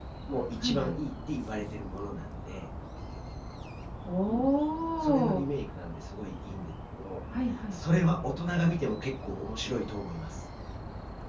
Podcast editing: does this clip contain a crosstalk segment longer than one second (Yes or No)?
No